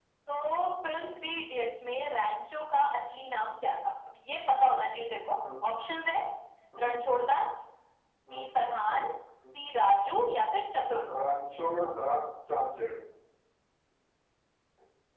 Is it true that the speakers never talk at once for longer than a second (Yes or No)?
Yes